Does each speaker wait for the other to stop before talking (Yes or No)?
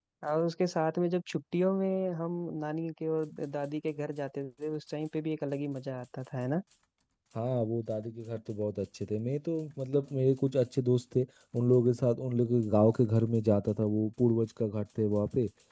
Yes